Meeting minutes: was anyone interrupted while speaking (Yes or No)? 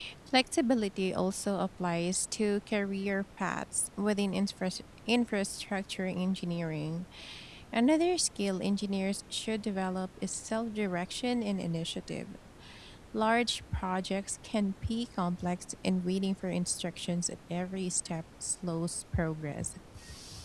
No